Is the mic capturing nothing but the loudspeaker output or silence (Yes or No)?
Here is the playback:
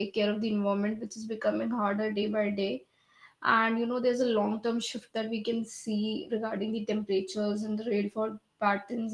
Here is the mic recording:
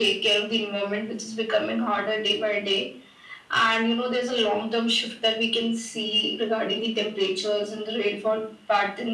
Yes